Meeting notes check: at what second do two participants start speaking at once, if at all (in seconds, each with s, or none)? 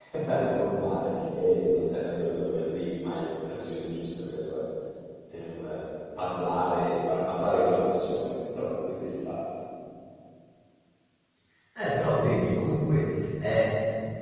none